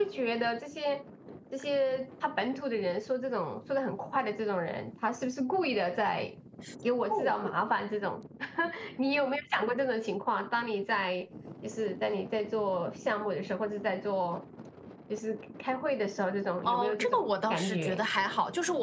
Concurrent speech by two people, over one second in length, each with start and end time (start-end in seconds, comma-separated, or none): 16.6-18.1